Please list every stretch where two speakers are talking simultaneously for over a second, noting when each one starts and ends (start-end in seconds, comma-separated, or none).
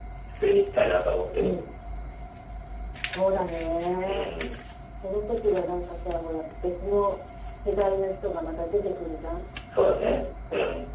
none